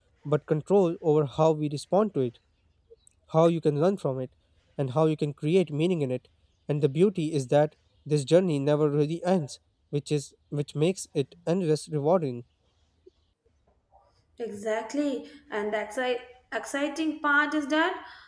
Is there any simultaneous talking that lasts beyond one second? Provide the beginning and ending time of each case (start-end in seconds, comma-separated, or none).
none